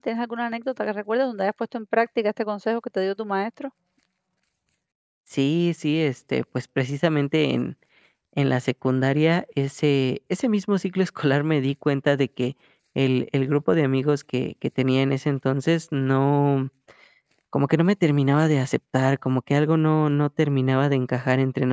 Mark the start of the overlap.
none

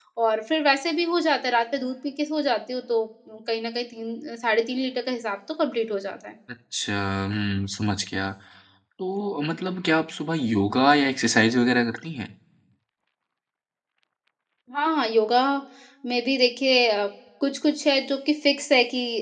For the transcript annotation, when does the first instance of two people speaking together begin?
none

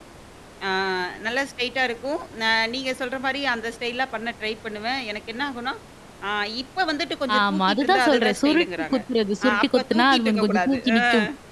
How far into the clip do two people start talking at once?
7.4 s

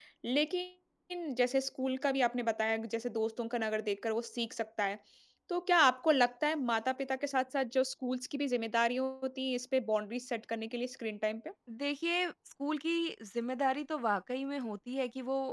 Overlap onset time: none

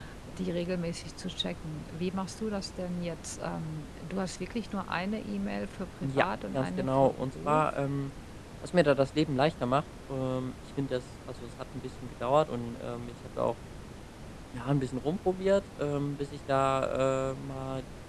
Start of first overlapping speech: 6.0 s

